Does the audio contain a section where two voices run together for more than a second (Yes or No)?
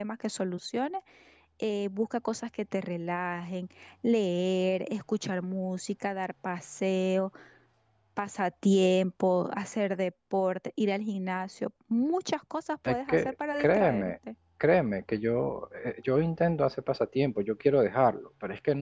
Yes